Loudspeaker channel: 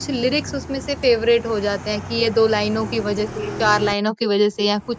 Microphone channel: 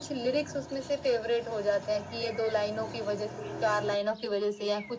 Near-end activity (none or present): none